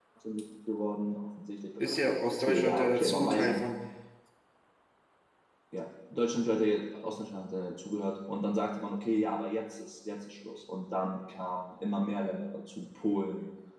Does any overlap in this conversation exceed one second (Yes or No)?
Yes